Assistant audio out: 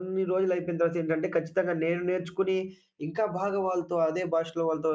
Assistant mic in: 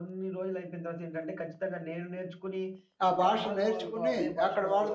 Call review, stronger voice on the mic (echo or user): user